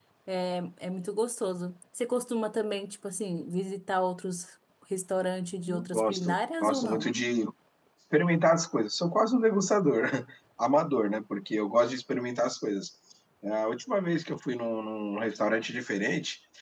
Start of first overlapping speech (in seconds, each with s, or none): 5.7 s